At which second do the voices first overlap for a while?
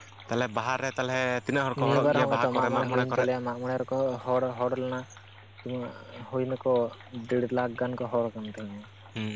1.8 s

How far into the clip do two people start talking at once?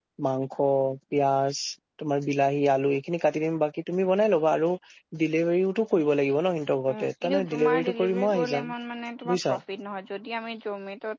6.9 s

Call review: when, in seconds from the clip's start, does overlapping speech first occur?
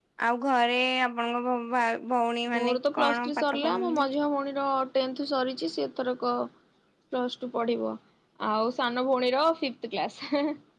2.5 s

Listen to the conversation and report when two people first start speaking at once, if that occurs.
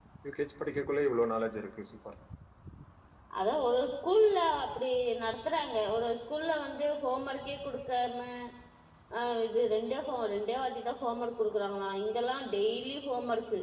none

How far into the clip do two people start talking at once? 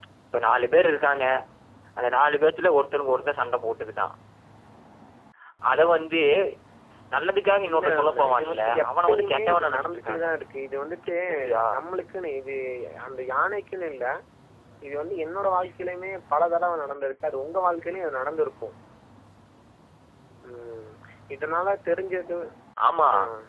7.7 s

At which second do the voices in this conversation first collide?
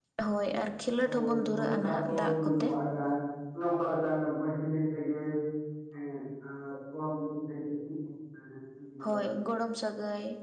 1.1 s

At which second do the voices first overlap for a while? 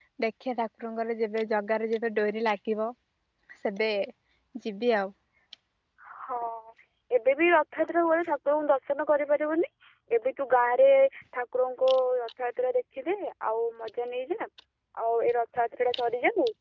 none

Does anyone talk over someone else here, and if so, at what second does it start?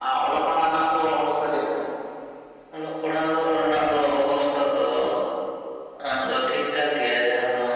none

